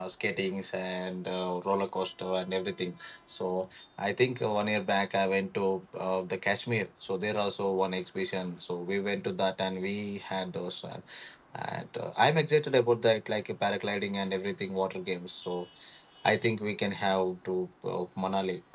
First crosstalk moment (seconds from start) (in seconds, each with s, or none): none